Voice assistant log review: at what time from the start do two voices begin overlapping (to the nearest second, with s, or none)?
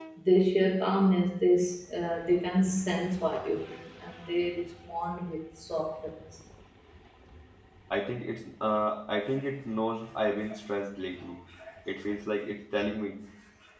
none